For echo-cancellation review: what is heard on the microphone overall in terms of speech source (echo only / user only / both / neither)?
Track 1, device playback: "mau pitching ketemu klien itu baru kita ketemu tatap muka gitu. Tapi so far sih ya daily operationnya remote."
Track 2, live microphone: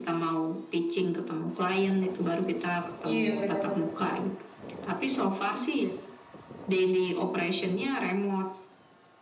both